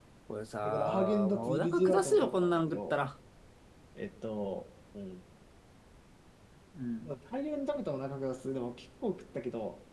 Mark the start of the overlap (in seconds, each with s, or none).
0.6 s